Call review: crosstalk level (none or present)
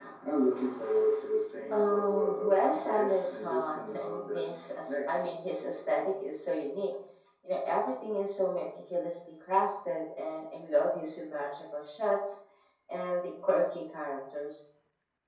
present